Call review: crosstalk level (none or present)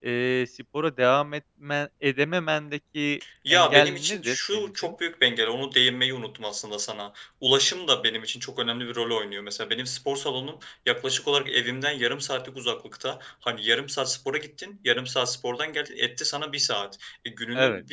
present